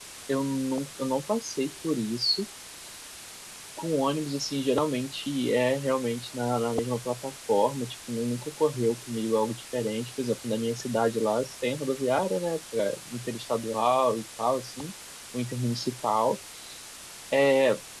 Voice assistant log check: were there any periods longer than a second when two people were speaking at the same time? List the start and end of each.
none

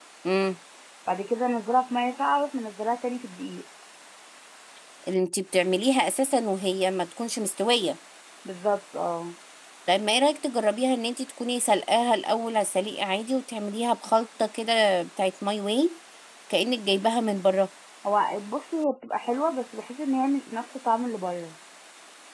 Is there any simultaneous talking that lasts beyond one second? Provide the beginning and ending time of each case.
none

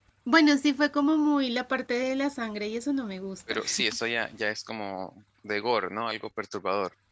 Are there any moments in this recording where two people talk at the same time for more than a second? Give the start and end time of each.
none

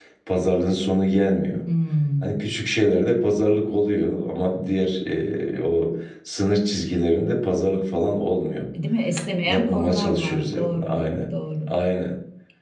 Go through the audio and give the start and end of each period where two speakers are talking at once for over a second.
9.4-11.0

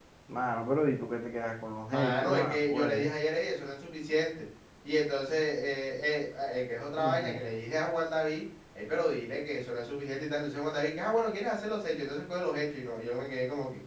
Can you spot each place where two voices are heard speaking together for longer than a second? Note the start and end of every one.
1.9-3.1

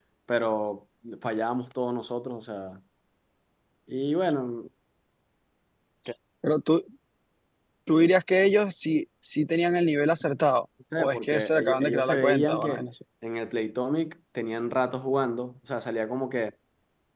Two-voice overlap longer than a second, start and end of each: 11.0-12.8

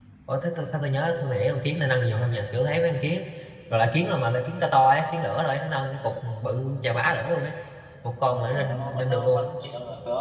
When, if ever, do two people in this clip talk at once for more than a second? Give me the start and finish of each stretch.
8.2-9.4

